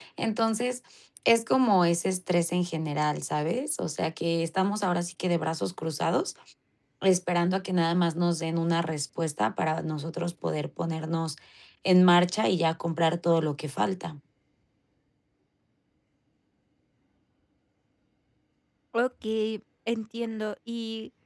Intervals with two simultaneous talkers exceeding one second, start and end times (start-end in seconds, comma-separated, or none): none